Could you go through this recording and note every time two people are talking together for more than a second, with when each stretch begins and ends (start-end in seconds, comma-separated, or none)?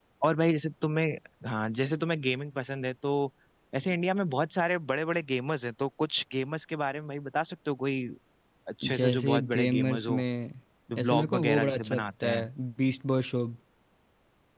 8.9-10.2, 10.9-12.5